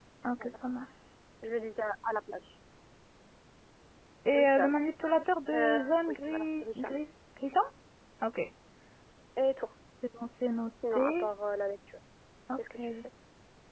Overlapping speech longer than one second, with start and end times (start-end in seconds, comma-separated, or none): 5.5-7.0